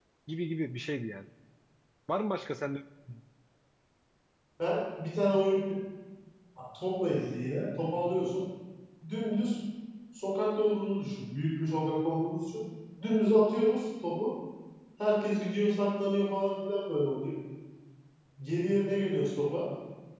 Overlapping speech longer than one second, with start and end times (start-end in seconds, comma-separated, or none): none